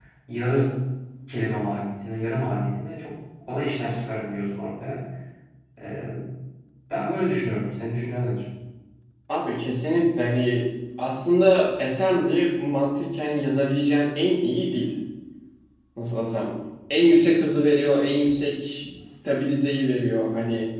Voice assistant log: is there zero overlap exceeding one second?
Yes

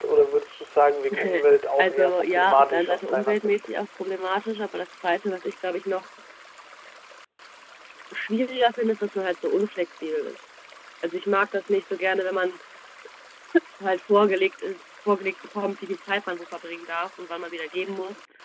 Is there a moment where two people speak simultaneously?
Yes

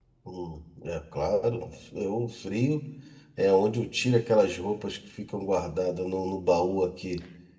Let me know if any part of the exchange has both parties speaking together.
No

